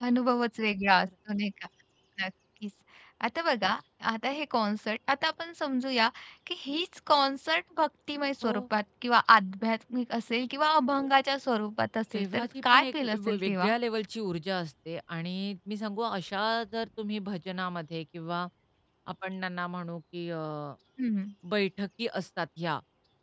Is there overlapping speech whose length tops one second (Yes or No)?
Yes